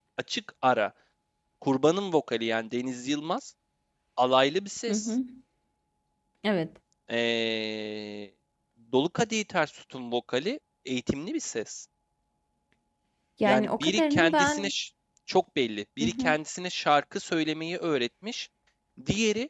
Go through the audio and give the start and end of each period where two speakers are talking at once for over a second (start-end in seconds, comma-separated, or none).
13.4-14.7